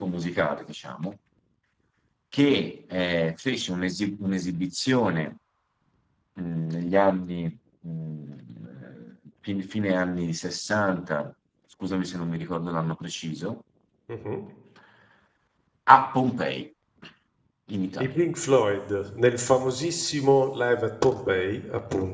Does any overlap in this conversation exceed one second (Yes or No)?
No